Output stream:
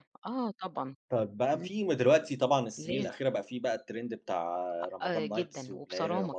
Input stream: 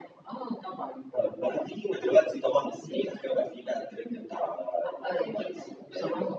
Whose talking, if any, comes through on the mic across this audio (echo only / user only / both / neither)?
echo only